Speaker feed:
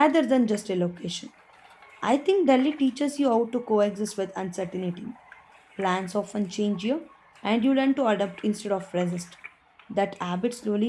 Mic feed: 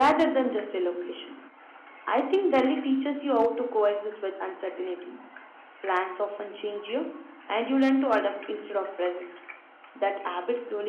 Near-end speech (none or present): none